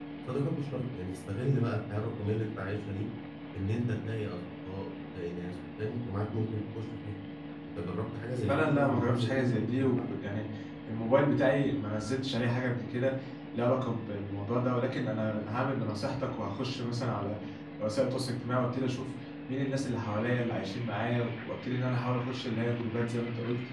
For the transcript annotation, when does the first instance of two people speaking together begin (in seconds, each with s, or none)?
8.5 s